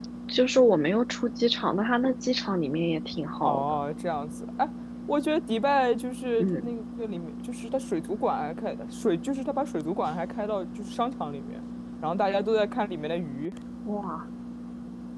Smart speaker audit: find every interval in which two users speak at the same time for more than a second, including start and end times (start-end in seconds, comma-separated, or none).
none